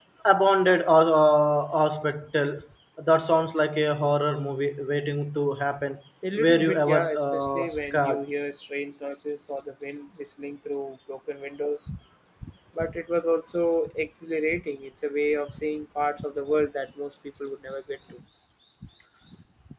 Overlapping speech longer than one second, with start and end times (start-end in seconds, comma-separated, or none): 6.4-8.2